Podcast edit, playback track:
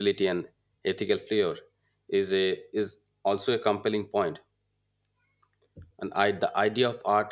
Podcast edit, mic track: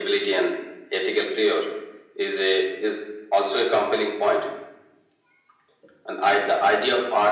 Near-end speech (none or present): none